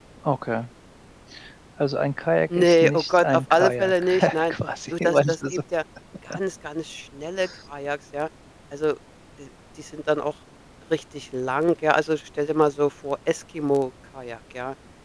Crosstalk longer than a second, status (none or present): present